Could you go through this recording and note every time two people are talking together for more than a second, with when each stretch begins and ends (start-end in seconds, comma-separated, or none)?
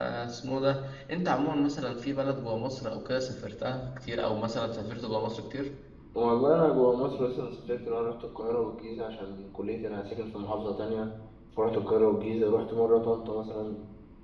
none